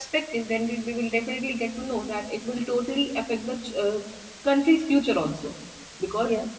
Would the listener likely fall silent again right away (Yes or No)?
Yes